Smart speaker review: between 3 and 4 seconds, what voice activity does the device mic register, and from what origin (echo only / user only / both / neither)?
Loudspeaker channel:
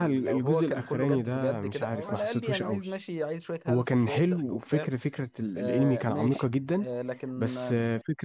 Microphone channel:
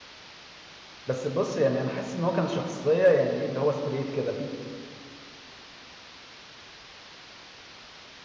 user only